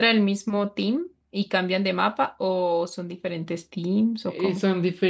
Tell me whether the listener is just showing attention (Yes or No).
No